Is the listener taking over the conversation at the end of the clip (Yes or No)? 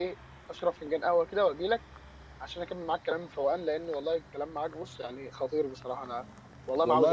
Yes